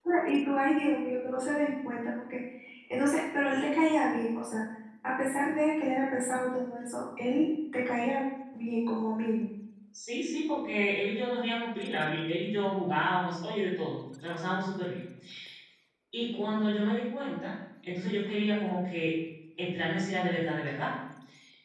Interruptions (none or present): none